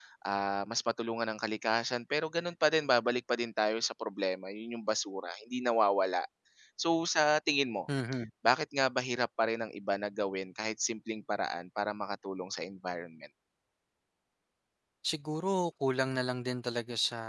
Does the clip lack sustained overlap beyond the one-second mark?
Yes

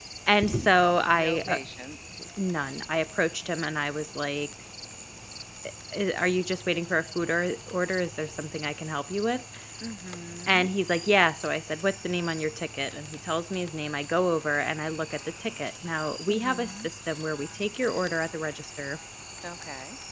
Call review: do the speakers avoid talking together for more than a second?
Yes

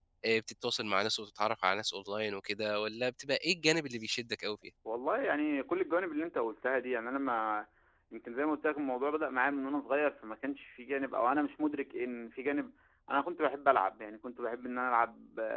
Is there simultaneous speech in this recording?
No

